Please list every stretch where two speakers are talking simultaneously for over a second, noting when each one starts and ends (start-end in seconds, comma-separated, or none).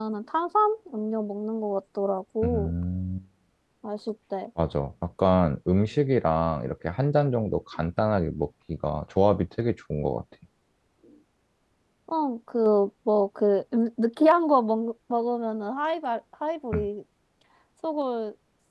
none